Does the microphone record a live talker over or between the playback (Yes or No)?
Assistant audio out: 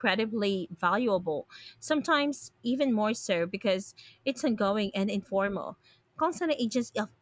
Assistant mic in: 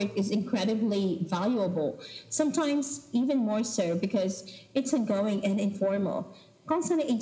No